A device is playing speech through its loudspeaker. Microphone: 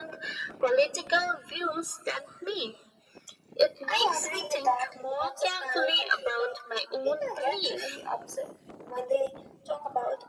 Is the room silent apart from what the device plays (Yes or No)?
Yes